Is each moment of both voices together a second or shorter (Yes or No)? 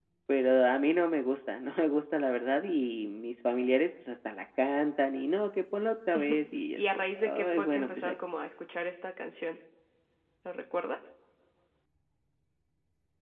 No